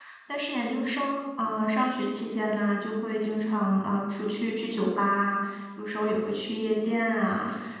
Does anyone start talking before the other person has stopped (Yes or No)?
No